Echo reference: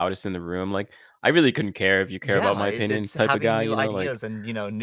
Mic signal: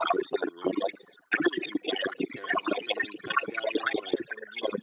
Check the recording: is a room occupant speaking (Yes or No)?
No